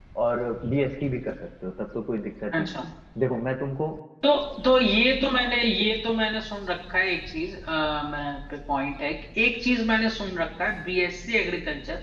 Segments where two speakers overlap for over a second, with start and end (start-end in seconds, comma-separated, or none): none